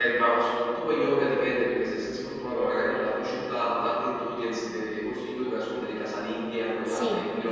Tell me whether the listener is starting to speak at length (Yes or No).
Yes